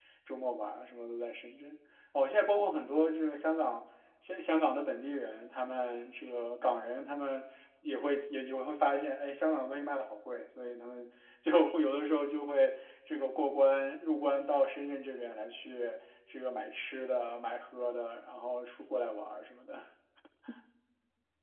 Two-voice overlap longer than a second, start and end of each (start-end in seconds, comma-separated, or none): none